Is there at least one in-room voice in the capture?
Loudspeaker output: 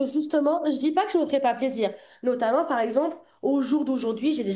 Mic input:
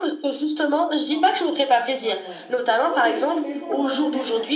Yes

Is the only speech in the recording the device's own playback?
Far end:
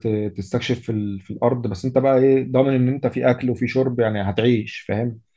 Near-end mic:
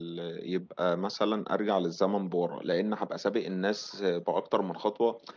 No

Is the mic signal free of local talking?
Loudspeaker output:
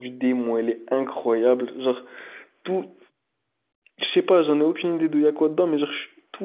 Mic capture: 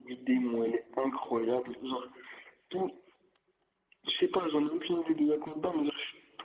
Yes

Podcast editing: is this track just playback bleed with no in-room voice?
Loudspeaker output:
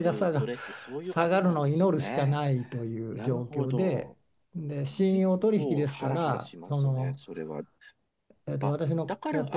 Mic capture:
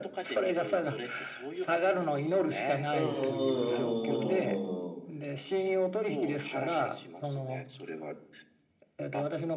No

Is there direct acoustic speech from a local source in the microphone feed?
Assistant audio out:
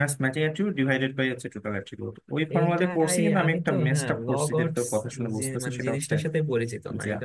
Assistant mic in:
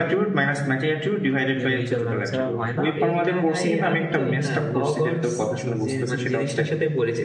Yes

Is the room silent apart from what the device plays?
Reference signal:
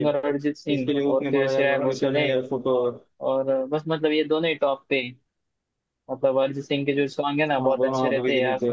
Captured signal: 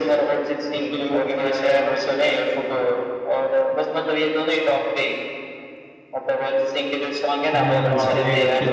No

